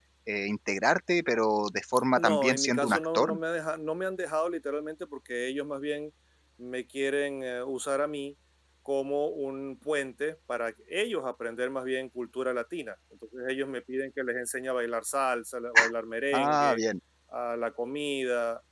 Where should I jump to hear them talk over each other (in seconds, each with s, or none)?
2.2 s